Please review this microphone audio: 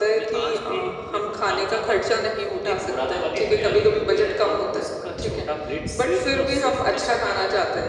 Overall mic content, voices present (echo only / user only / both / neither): echo only